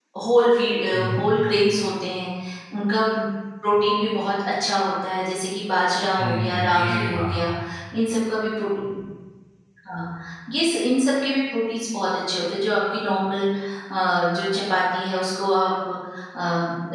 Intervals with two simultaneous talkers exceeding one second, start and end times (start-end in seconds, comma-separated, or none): 6.2-7.5